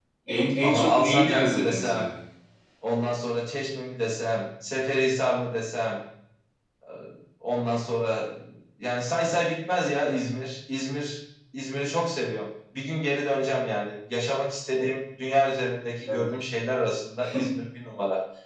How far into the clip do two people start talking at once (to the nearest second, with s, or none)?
1 s